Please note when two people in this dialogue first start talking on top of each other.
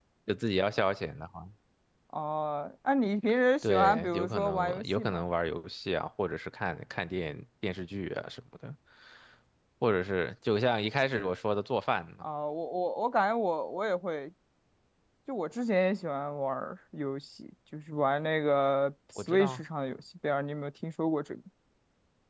3.6 s

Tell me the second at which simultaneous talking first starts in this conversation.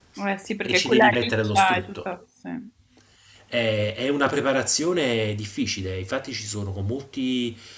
0.6 s

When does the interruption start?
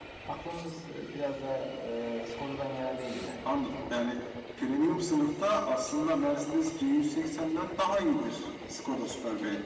none

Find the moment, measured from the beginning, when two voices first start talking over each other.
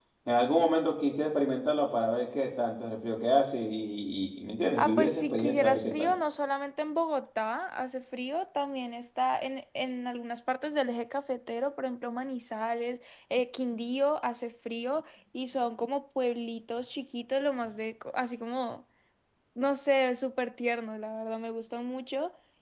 4.8 s

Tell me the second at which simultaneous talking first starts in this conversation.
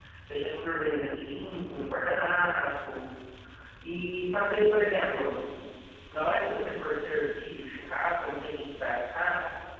none

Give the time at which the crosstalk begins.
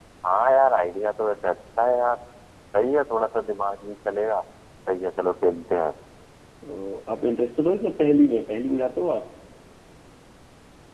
none

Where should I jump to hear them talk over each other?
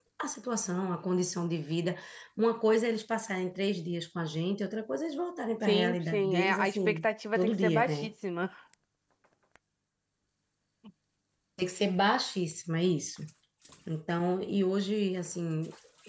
5.6 s

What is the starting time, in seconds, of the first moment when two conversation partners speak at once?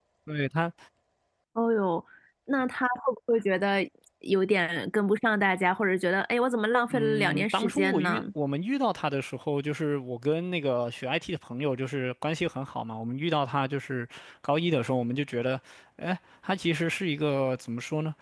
6.9 s

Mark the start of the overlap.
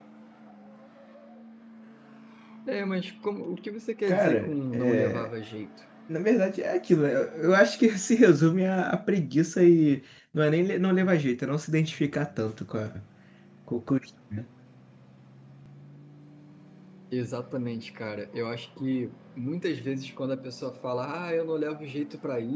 4.1 s

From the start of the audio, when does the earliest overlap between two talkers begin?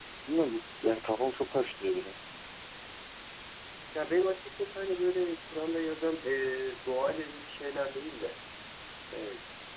none

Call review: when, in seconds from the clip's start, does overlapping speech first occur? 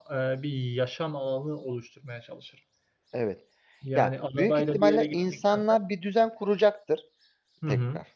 4.0 s

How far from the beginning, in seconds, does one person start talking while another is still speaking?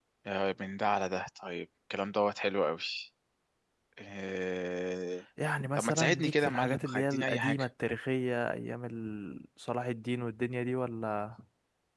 5.8 s

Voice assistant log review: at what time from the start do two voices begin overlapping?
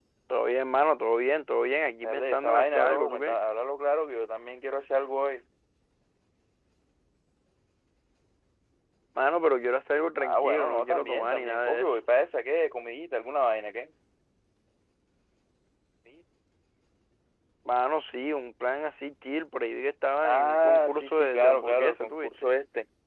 2.0 s

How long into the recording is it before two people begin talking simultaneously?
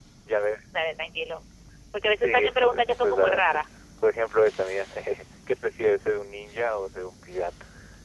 2.1 s

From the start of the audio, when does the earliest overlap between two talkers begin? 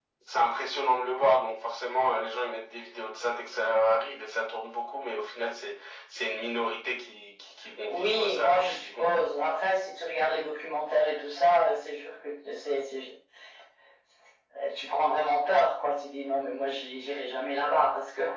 7.9 s

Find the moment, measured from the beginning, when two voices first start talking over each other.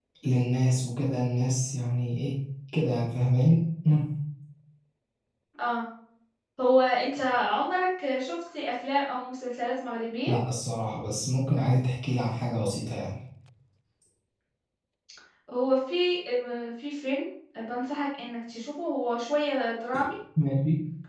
none

